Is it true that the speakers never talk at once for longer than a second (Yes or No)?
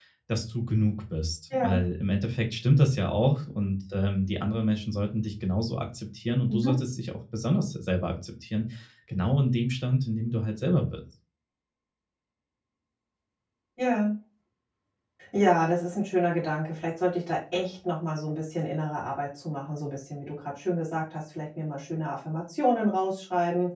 Yes